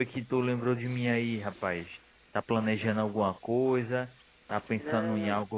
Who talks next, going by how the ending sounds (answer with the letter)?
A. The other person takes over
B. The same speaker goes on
B